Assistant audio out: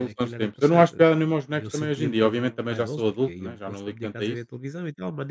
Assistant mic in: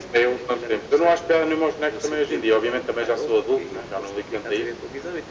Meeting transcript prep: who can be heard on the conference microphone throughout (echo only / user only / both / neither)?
echo only